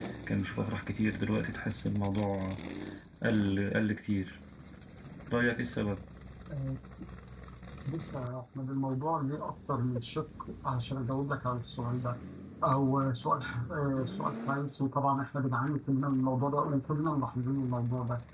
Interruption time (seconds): none

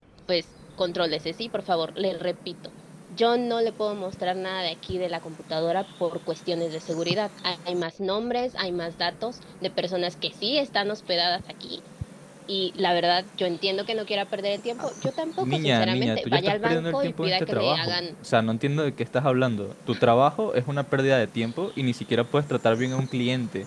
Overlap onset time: 15 s

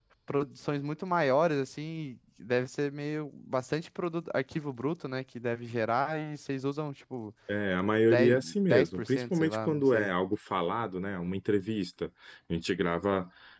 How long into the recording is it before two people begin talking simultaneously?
8 s

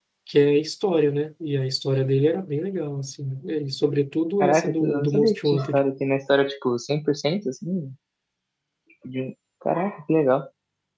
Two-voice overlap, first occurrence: 4 s

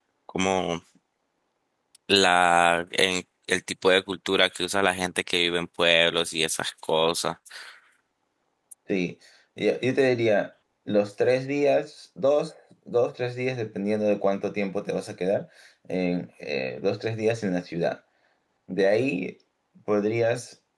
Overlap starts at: none

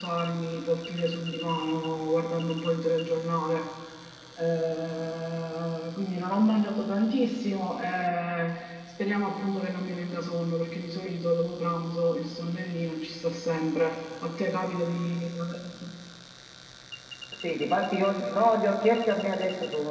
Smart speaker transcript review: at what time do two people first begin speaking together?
none

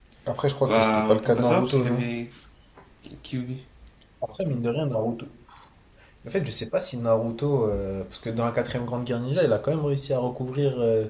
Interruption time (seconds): 1 s

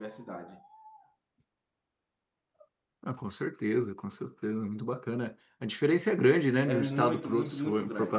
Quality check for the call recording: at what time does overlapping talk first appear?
7 s

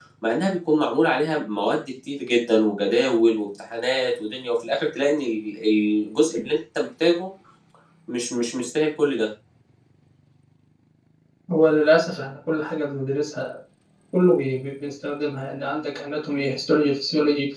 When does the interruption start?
none

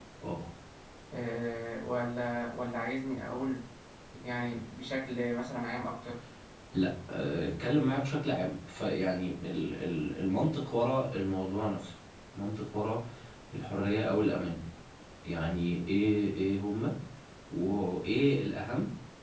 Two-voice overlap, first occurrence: none

